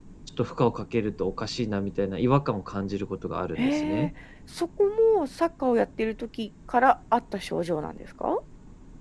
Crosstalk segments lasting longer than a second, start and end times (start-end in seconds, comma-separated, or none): none